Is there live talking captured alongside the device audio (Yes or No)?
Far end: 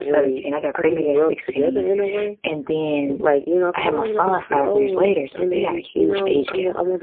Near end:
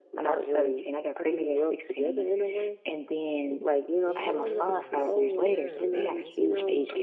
Yes